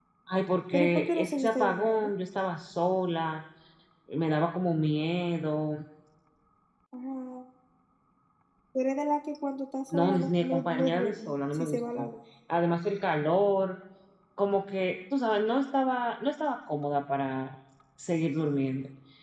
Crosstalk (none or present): present